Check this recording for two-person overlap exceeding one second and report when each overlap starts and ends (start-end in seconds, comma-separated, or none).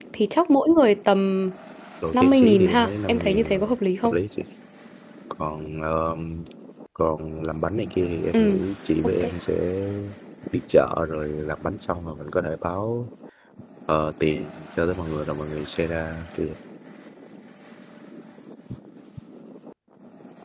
2.1-3.6